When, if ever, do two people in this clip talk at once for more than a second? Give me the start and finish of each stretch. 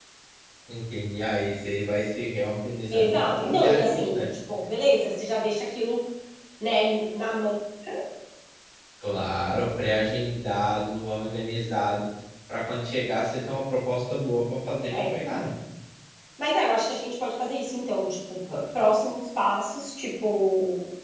2.9-4.3

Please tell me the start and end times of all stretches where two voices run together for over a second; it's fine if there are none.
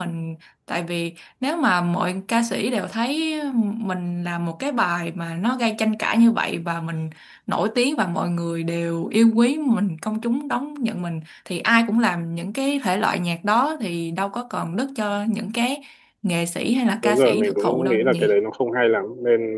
17.0-18.3

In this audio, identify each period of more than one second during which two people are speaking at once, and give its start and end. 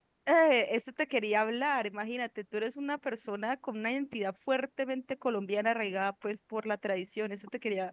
none

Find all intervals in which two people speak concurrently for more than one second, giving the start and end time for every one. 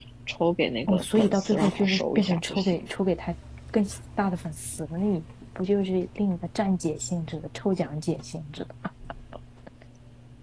0.9-2.8

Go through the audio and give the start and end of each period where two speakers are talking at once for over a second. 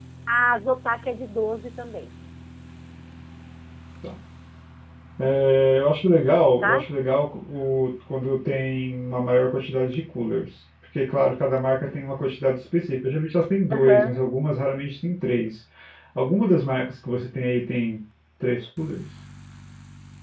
none

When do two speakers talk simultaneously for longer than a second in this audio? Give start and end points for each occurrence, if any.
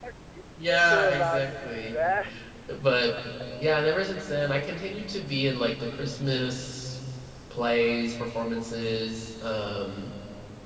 0.6-1.9

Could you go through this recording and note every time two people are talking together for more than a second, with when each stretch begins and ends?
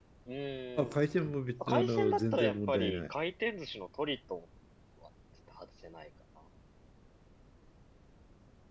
1.6-3.1

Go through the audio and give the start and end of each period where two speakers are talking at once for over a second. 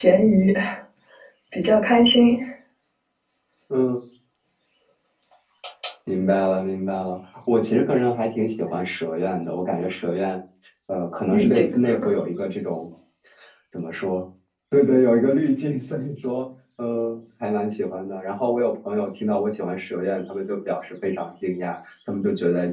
none

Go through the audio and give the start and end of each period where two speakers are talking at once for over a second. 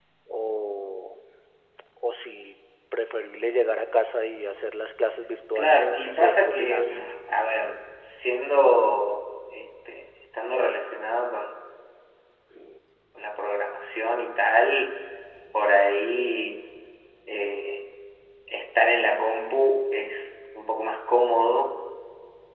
5.6-7.0

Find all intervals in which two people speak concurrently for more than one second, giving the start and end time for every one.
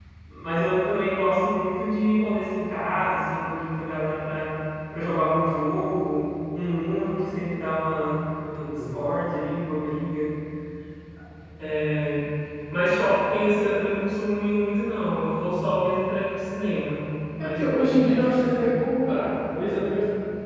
17.4-18.7

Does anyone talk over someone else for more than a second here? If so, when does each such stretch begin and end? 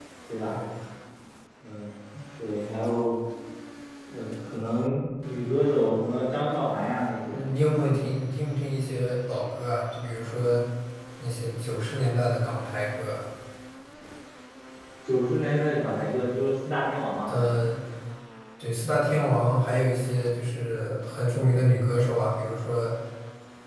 none

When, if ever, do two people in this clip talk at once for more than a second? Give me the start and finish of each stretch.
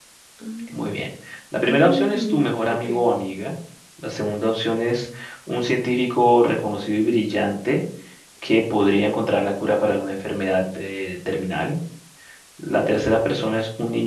1.6-2.9

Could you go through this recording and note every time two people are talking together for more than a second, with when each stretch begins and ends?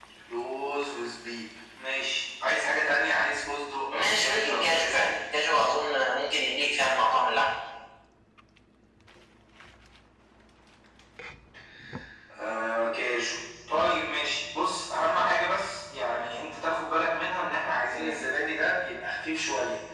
3.9-5.1

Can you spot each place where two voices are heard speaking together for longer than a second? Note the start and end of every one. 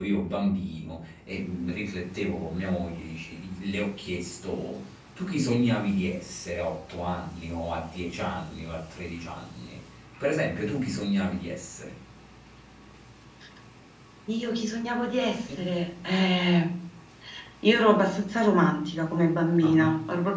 none

